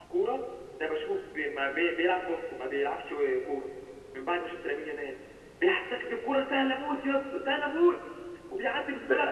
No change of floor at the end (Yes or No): Yes